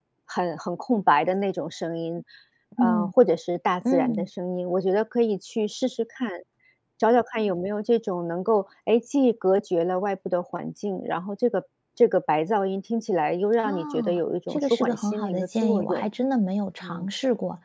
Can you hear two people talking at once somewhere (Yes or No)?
Yes